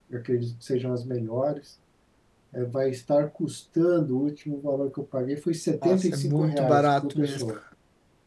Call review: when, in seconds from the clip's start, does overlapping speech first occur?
6 s

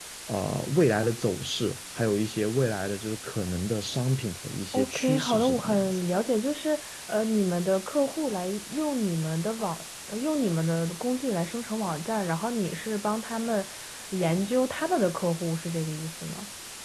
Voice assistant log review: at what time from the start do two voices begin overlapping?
5 s

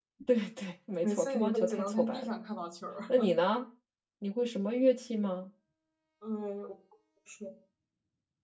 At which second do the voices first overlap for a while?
1 s

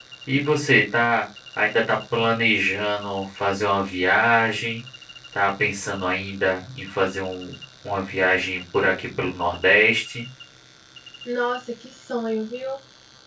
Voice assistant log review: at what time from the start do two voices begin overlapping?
none

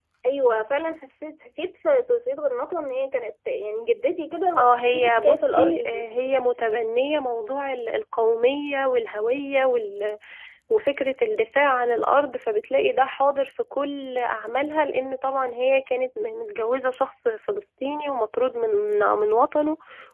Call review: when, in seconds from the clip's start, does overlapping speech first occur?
5 s

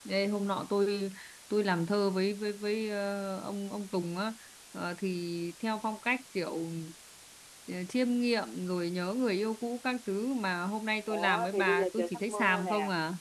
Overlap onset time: 11 s

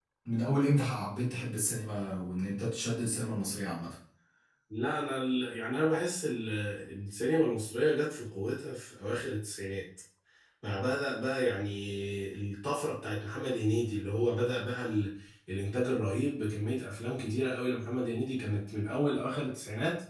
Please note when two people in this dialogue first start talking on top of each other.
none

